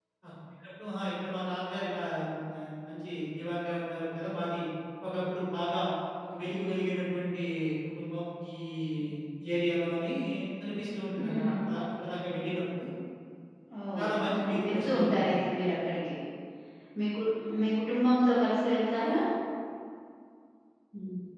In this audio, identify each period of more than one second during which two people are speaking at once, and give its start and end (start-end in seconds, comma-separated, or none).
14.0-15.4